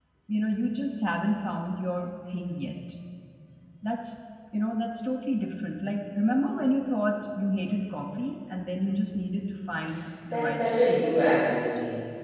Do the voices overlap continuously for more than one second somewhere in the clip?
No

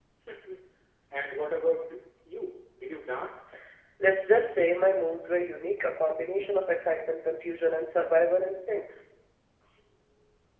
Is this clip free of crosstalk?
Yes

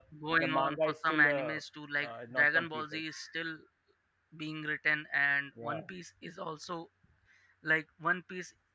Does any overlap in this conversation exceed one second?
Yes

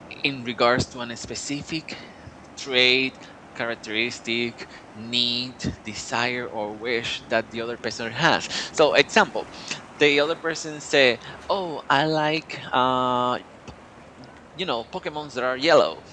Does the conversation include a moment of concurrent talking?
No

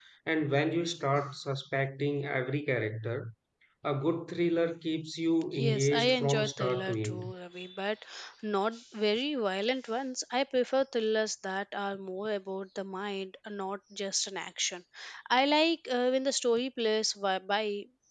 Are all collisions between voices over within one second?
No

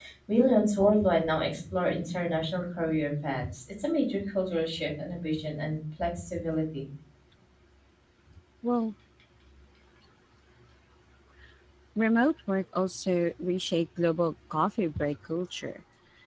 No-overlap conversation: Yes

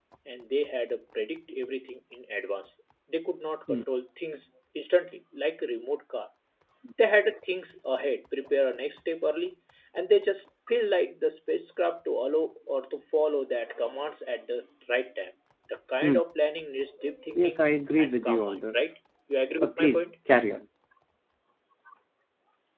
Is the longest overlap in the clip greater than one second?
Yes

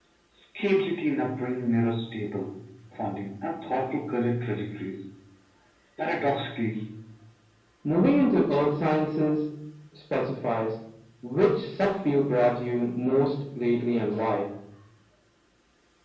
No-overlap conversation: Yes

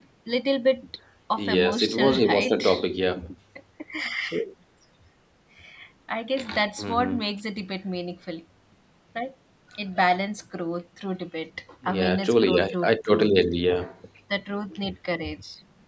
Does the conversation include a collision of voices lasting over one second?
Yes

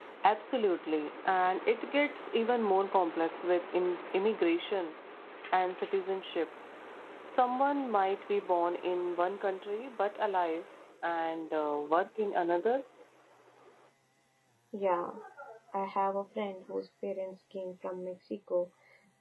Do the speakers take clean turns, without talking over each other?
Yes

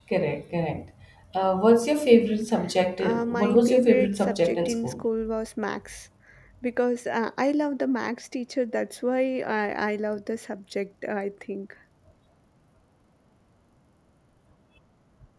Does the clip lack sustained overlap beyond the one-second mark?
No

